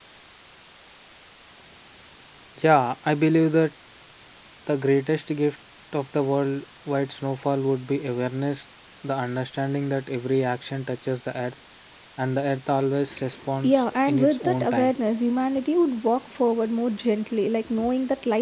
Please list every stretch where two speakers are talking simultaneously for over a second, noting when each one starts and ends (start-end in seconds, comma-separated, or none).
13.7-14.9